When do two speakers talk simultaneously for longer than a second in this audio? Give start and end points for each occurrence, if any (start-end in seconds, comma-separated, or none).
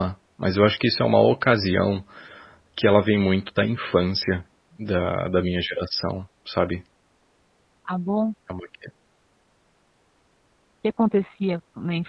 none